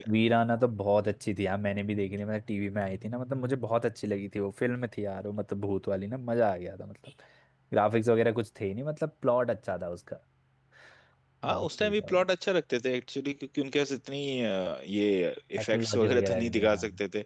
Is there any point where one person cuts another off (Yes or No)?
Yes